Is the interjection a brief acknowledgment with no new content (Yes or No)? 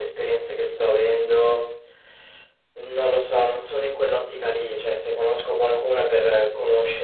Yes